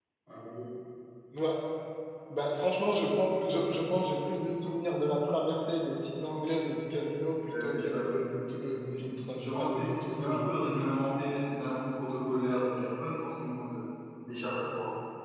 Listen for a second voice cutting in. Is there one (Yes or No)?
Yes